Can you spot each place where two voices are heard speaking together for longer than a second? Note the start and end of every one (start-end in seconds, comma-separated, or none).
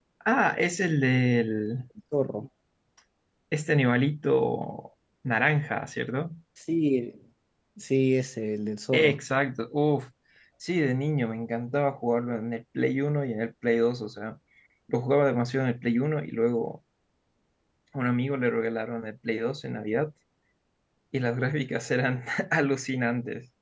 none